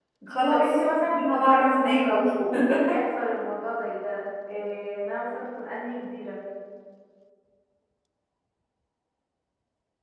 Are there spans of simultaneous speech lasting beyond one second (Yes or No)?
Yes